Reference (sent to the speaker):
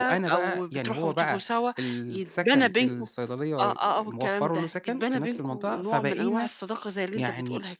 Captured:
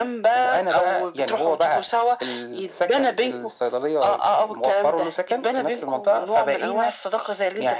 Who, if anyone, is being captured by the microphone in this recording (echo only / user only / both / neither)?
echo only